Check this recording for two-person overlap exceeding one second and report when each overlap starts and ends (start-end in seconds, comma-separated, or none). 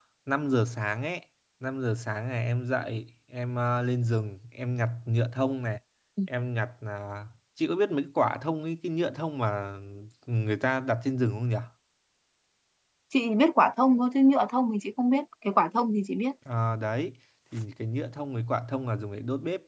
none